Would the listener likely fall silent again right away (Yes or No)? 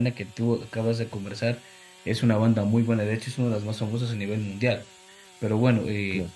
Yes